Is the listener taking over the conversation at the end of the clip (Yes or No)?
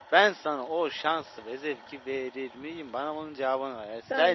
Yes